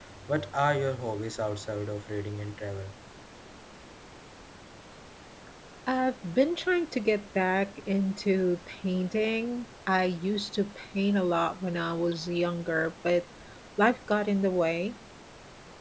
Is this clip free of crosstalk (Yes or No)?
Yes